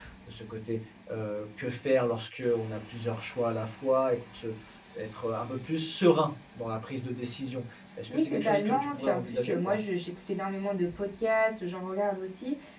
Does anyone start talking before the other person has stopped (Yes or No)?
Yes